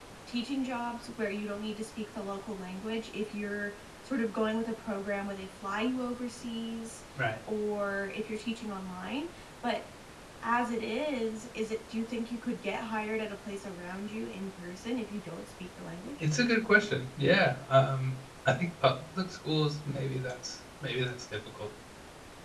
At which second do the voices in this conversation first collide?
none

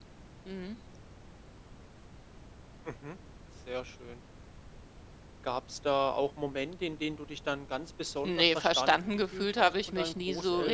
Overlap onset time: 8.2 s

